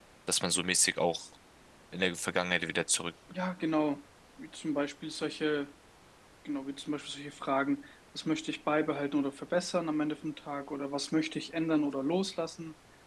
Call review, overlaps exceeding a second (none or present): none